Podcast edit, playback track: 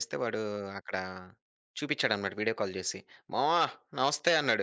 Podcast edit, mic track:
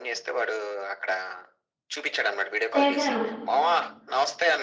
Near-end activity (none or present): present